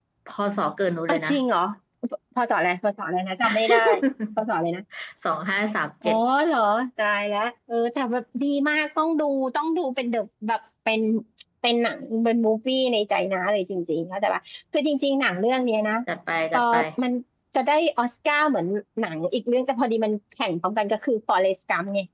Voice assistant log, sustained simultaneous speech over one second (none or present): none